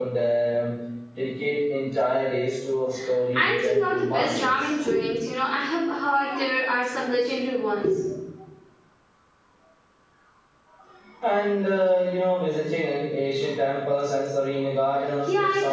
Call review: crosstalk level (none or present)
present